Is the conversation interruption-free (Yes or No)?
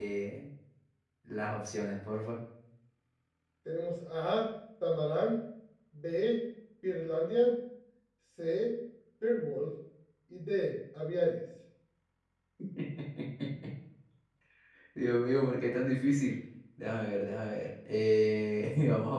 Yes